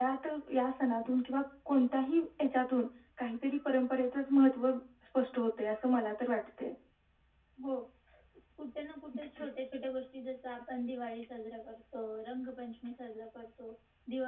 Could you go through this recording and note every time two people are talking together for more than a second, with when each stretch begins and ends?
none

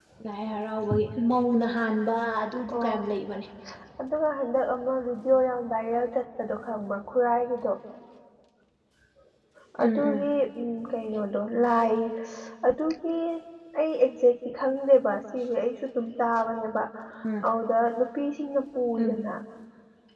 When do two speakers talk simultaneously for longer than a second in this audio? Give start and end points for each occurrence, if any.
none

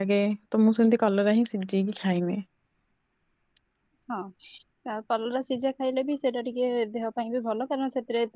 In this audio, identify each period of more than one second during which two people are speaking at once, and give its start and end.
none

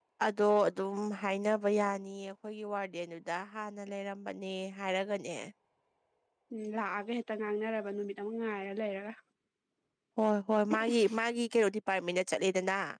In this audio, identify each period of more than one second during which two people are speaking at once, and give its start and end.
none

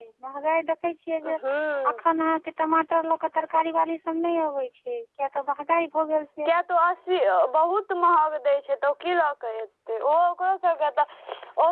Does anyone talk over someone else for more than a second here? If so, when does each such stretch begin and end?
none

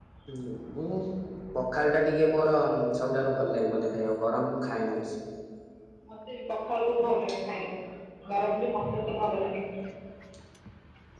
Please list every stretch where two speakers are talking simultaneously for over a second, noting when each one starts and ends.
none

